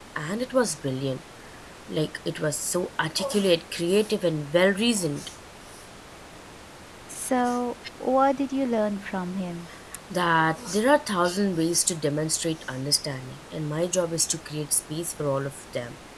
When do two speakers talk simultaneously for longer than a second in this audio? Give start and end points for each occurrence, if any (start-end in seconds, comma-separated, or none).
none